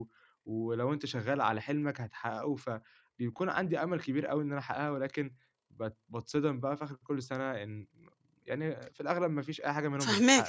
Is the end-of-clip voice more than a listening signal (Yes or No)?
Yes